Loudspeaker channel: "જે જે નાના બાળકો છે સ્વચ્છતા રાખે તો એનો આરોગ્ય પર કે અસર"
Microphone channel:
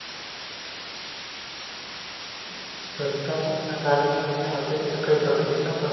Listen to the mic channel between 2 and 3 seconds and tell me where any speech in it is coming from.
user only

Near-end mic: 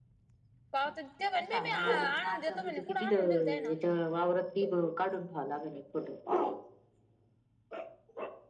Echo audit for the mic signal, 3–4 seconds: both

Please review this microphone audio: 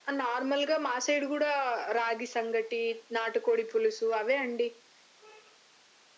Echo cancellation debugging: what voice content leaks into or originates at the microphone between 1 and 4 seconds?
echo only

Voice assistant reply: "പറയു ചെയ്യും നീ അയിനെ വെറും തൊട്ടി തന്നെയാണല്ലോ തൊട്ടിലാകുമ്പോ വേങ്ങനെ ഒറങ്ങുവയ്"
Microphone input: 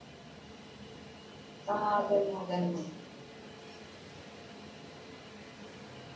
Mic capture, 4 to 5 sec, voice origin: neither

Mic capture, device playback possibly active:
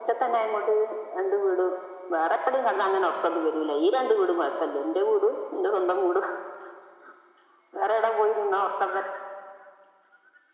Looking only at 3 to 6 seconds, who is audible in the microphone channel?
echo only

